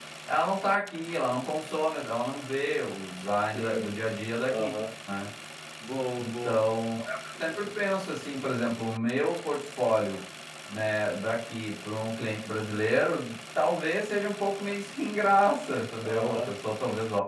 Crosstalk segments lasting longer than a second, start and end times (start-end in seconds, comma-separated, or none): none